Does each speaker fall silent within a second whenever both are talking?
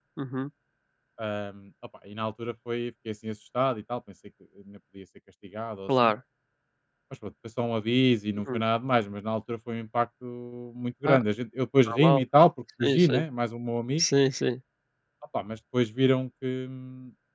Yes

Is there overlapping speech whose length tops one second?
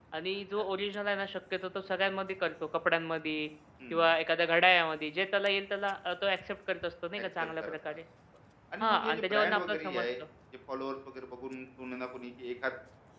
Yes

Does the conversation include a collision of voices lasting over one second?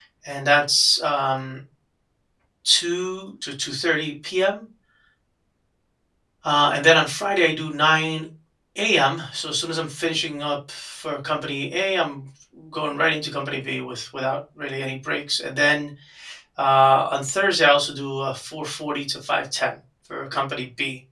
No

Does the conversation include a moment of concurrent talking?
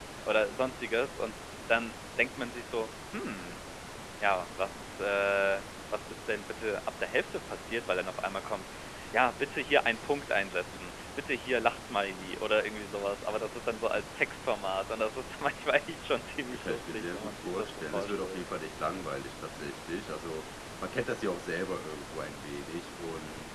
Yes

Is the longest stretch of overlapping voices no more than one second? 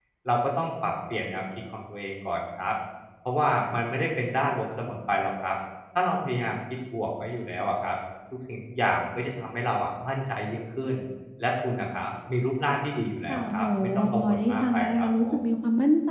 No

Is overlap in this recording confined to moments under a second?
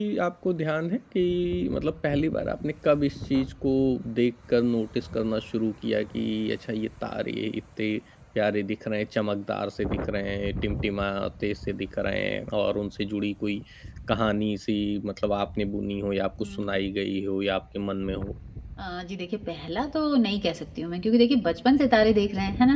Yes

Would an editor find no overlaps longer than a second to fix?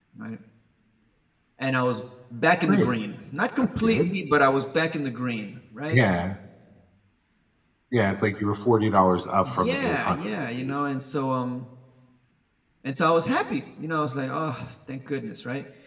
No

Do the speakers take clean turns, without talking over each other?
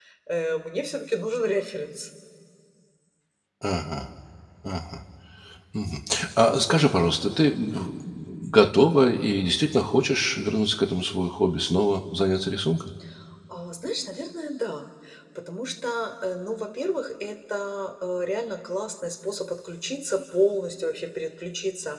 Yes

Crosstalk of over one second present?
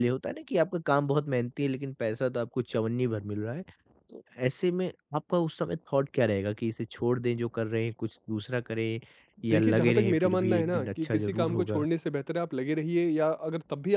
Yes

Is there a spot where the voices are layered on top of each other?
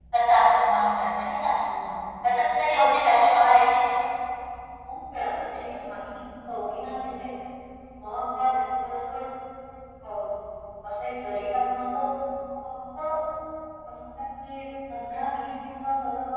No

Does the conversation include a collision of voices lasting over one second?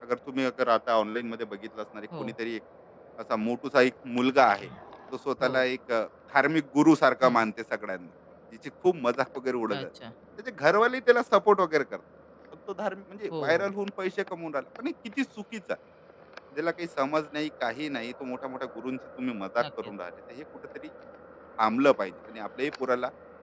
No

